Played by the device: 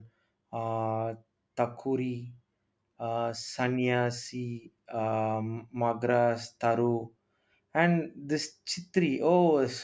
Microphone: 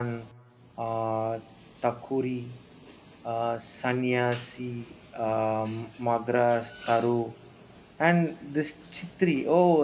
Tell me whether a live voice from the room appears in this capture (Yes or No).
No